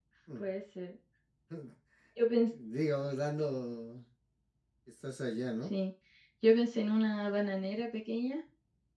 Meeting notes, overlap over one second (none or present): none